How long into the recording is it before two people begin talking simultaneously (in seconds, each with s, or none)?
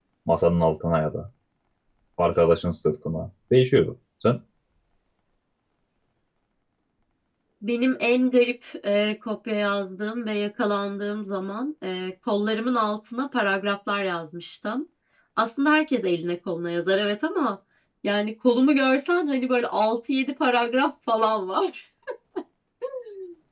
none